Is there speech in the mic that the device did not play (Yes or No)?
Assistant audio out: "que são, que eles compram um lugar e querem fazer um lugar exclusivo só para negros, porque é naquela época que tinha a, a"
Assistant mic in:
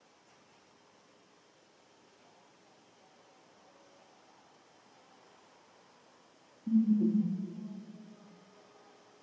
Yes